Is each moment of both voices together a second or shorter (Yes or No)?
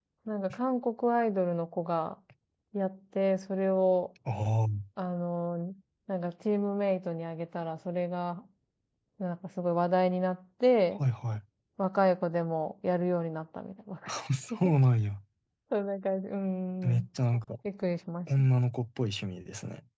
Yes